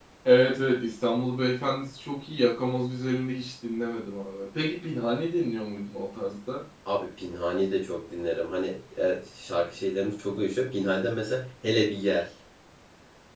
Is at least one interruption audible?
No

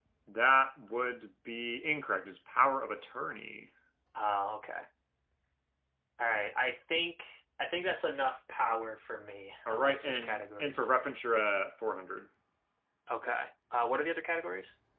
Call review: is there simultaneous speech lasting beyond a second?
Yes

